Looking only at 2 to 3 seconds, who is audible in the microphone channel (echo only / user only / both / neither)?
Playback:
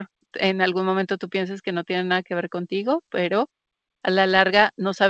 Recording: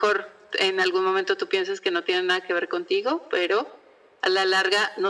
echo only